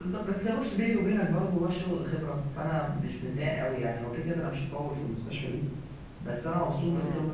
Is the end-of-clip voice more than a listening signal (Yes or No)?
No